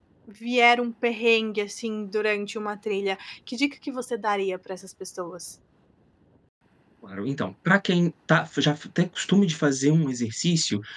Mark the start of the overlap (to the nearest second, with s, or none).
none